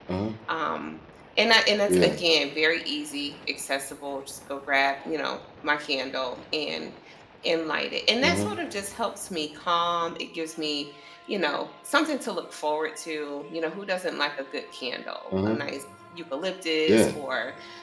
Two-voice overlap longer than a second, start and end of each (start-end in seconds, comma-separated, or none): none